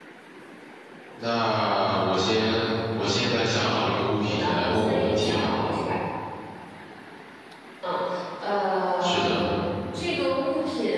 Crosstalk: present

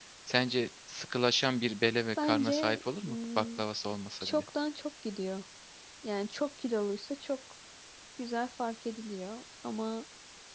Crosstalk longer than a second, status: present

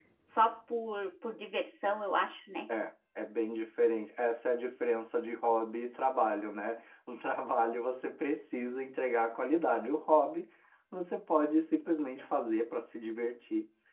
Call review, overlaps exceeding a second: none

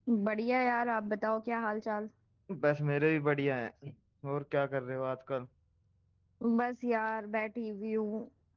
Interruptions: none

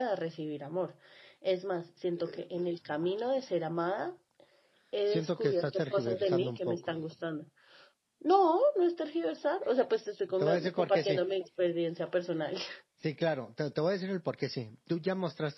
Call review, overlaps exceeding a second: present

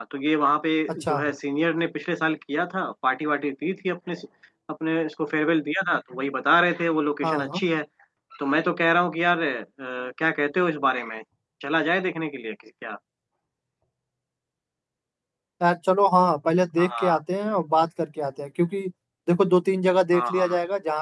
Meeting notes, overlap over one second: none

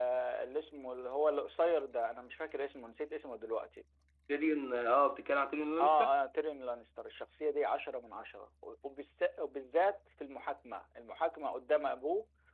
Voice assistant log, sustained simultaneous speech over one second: none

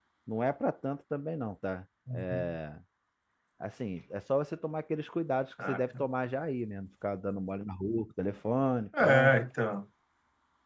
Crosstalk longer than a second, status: none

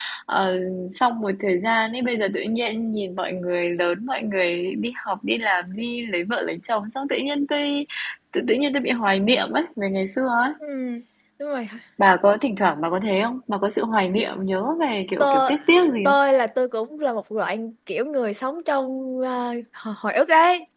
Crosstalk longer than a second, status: none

